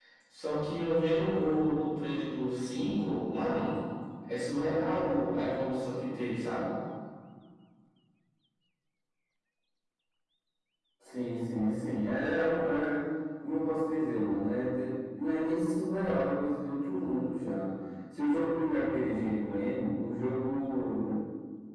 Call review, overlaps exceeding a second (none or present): none